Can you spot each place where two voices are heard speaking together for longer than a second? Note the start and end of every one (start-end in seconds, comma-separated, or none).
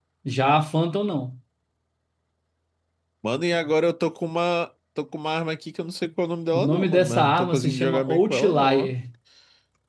6.5-8.9